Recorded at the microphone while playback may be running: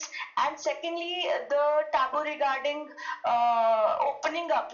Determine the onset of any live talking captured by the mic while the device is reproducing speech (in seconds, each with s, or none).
none